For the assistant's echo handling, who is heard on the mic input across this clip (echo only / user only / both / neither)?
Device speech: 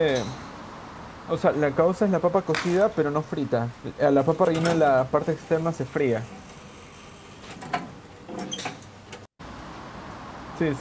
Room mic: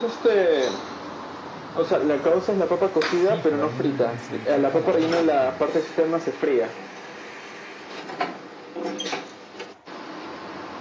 both